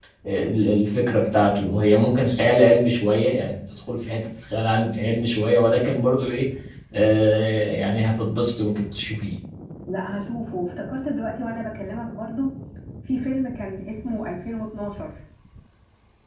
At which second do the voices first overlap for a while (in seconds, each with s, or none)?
none